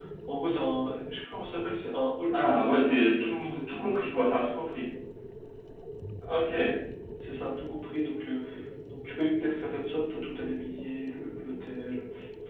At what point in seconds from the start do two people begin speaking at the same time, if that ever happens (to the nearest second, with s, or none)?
2 s